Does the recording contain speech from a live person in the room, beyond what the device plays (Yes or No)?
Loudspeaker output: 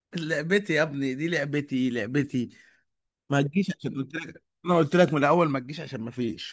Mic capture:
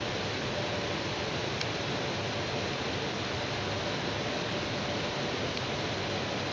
No